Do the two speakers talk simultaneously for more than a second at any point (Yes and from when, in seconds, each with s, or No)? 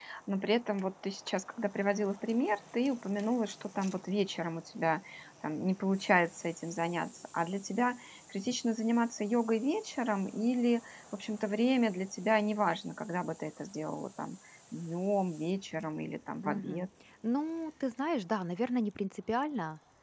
No